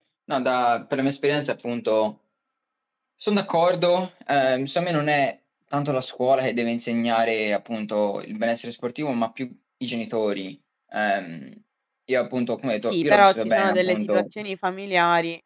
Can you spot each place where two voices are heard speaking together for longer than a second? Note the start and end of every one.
12.8-14.2

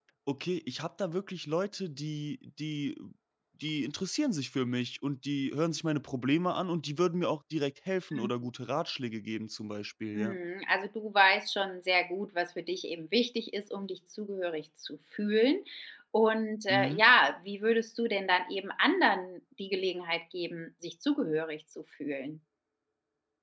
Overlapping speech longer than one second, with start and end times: none

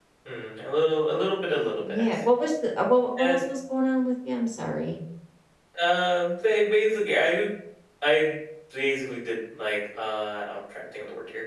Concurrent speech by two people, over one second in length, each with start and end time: none

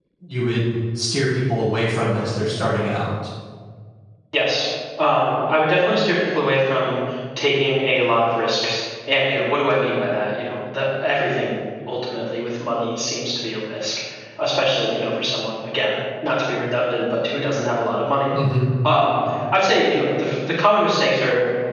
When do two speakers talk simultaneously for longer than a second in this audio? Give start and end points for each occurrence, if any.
none

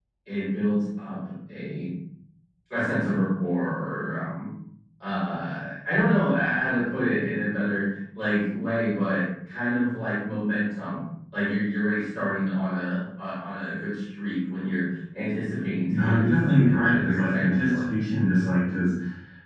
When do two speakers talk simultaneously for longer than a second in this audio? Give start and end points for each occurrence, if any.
15.9-17.8

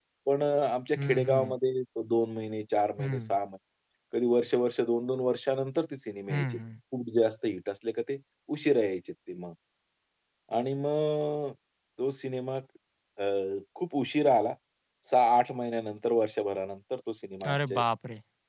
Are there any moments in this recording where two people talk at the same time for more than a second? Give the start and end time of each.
none

